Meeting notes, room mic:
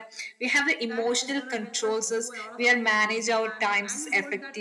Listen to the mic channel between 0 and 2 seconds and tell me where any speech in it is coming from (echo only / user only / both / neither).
both